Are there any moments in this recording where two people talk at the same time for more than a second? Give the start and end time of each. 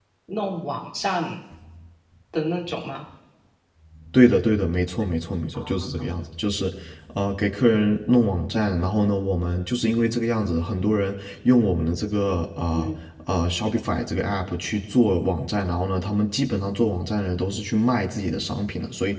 none

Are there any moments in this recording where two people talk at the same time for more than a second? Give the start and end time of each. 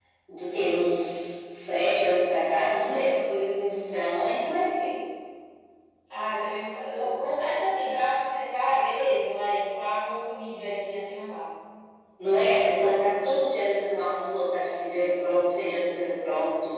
none

